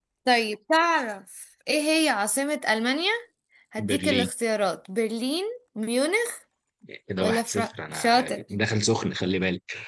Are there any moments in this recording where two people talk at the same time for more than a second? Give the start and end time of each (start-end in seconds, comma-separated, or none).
7.2-8.4